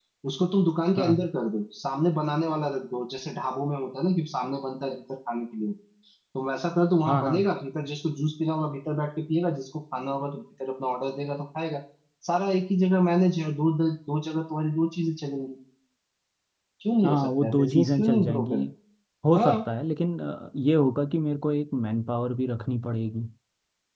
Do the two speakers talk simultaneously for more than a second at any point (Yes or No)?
Yes